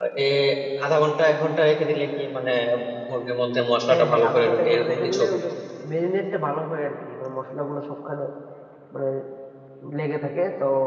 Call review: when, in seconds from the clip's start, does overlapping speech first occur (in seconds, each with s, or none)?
3.9 s